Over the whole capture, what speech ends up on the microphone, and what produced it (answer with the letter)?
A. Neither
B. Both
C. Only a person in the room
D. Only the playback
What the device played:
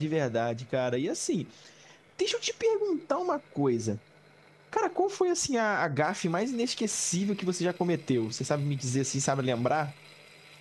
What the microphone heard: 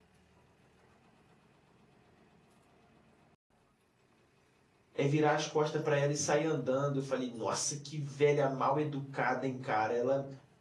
C